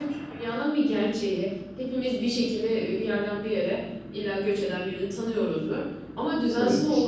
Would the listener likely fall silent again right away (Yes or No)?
Yes